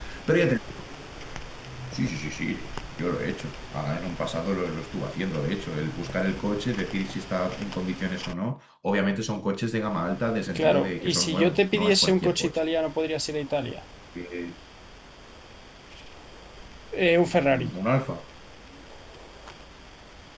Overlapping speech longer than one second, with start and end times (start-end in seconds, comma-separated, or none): 10.6-12.6